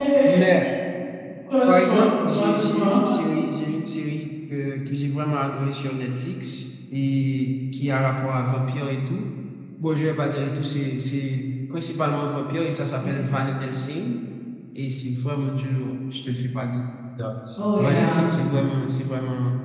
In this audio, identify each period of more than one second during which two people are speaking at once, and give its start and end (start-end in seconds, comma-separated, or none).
1.7-3.0